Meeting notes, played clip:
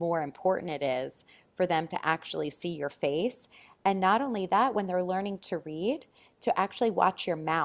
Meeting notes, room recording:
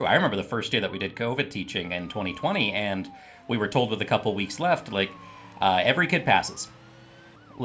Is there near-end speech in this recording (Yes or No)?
Yes